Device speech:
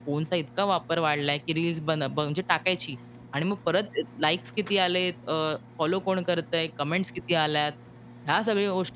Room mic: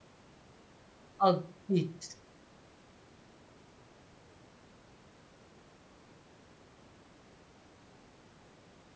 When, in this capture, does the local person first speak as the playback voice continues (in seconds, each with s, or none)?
1.3 s